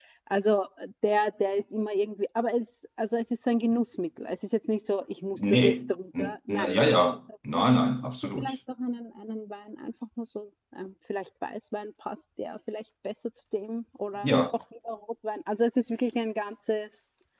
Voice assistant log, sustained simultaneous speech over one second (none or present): present